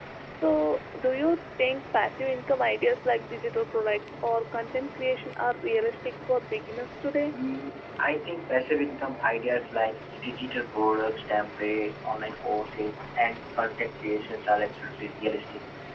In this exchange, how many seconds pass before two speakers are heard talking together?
none

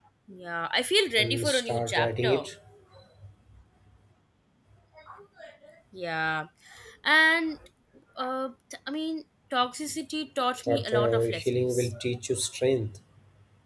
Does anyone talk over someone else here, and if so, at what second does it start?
1.2 s

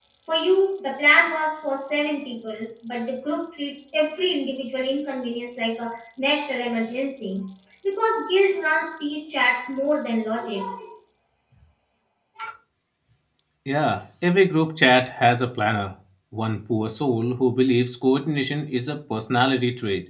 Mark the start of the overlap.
none

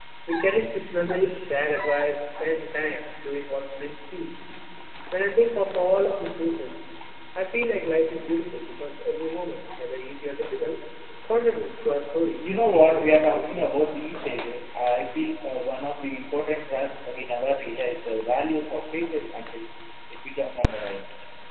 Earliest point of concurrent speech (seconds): 12.4 s

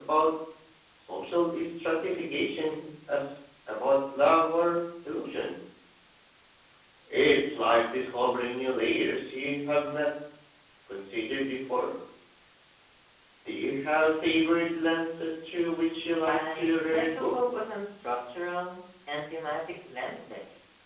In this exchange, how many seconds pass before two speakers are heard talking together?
16.3 s

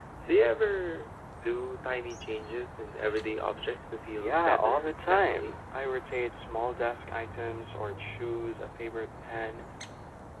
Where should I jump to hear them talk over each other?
4.2 s

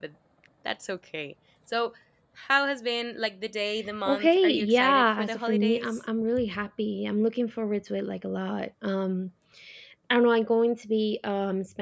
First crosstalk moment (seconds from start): 4.0 s

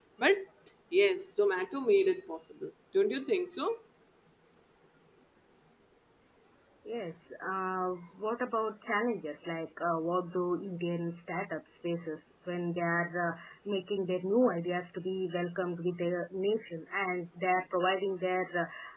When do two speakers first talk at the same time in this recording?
none

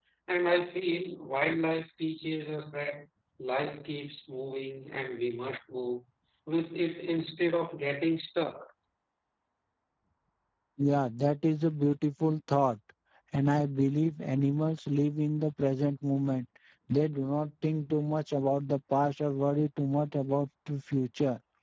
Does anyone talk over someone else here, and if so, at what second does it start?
none

